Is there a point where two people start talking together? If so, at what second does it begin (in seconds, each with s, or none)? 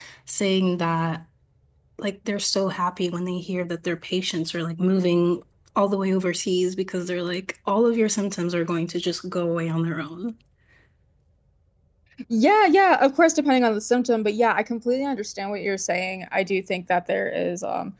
none